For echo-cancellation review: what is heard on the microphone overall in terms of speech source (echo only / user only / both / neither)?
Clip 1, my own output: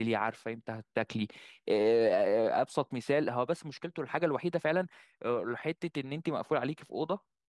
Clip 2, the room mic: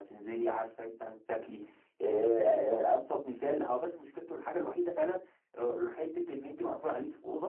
echo only